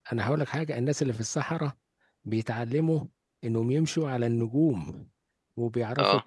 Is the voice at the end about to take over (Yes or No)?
No